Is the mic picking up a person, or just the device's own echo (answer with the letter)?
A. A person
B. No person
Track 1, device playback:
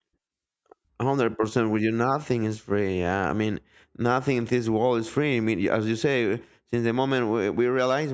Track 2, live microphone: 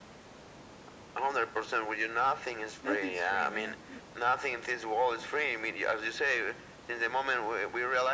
A